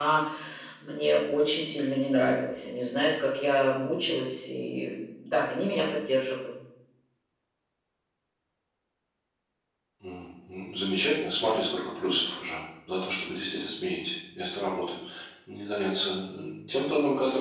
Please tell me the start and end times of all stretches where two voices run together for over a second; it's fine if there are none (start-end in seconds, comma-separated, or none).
none